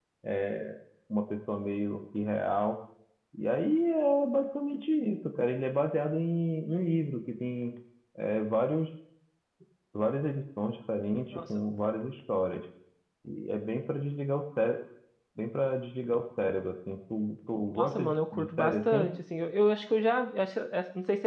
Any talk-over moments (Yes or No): Yes